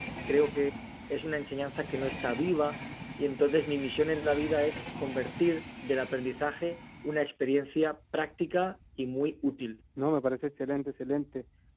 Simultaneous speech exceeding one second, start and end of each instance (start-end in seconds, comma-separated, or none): none